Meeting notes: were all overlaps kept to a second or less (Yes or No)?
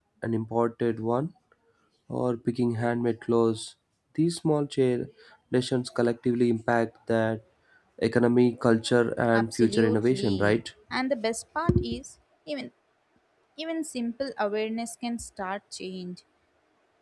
No